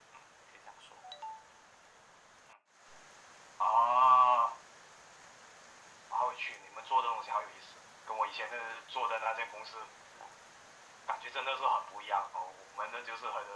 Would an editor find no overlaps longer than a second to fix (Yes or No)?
Yes